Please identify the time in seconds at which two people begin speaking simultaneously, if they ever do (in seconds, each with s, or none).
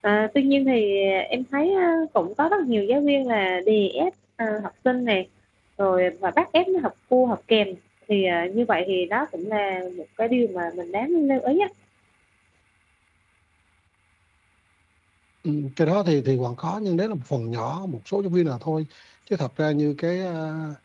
none